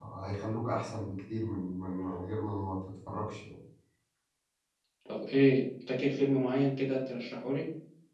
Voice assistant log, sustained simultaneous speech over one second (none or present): none